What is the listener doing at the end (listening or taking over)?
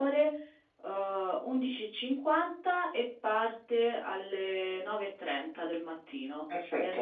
taking over